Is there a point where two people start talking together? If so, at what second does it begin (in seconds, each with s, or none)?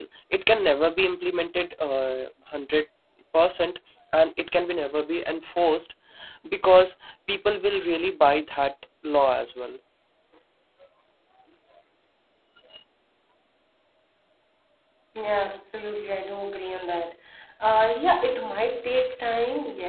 none